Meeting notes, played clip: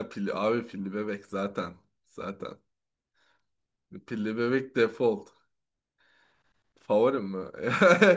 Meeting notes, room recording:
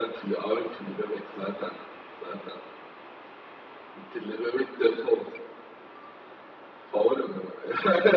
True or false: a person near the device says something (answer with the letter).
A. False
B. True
A